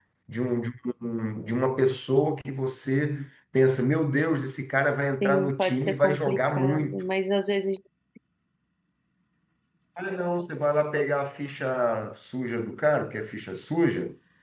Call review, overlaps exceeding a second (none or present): present